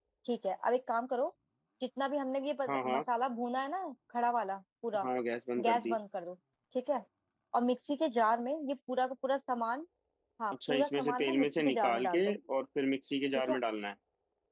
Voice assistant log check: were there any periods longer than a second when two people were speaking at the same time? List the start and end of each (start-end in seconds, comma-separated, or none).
10.5-12.3